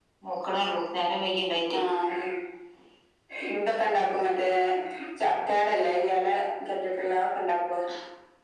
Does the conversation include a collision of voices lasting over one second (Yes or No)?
No